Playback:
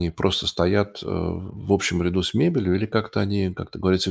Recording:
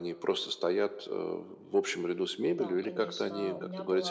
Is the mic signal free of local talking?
No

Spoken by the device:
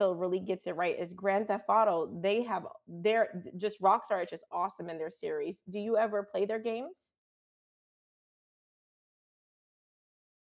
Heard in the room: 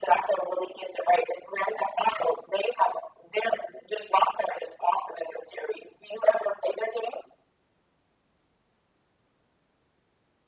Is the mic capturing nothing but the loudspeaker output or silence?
Yes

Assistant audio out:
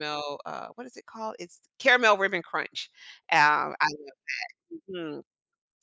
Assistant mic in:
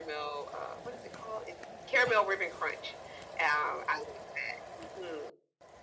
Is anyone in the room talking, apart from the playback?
No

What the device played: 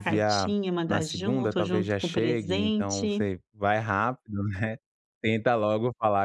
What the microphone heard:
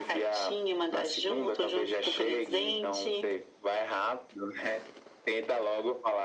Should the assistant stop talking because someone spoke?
No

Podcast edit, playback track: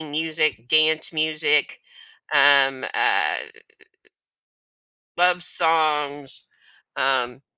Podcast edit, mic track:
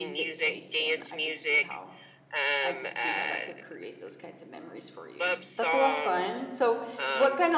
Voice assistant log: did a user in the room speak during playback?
Yes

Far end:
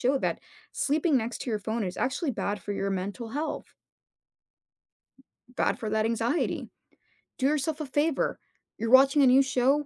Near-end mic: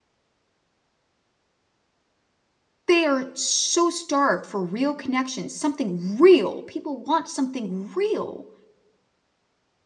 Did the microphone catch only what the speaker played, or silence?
No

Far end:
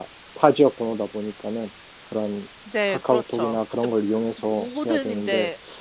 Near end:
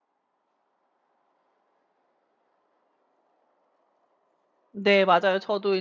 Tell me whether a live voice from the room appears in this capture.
Yes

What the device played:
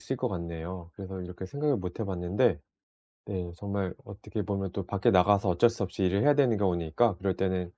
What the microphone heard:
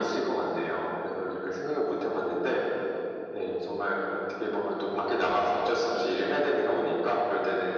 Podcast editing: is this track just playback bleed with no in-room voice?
Yes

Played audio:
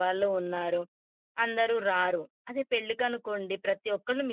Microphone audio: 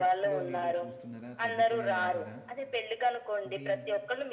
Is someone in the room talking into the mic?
Yes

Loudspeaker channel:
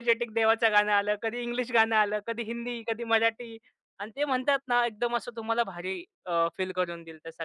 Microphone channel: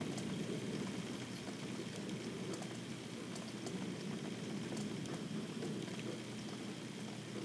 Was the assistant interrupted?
No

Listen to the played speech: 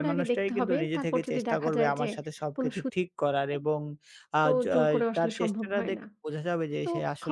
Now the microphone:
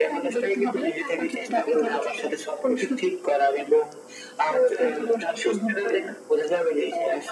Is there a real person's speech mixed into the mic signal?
No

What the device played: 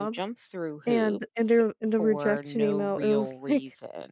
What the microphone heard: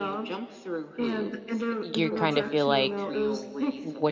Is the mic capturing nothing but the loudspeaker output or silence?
No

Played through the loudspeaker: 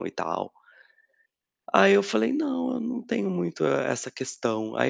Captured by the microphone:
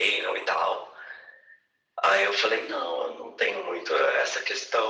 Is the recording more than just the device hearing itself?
No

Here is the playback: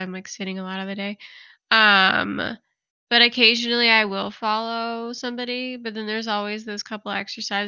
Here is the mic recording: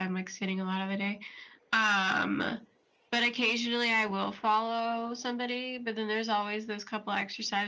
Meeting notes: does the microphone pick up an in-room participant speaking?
No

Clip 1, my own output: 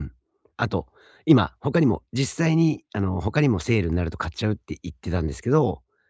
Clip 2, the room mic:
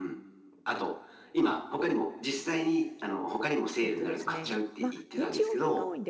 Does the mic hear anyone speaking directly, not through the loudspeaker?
Yes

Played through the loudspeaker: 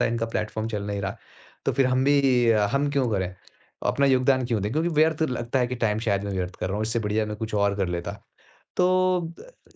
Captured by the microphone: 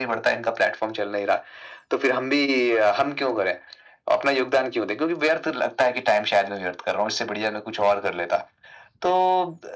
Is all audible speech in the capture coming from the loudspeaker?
Yes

